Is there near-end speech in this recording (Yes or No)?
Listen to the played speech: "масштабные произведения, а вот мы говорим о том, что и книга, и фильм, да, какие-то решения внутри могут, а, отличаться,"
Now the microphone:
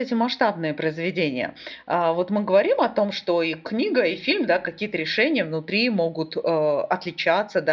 No